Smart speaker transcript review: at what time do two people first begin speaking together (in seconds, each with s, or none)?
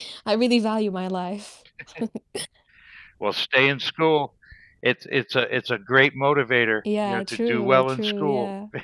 6.8 s